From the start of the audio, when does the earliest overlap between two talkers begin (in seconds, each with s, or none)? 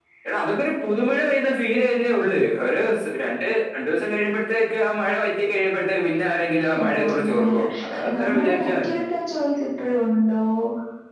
6.7 s